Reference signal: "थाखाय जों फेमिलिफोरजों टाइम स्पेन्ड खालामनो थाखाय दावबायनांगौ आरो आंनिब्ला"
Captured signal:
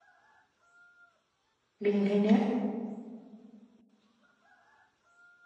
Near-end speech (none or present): present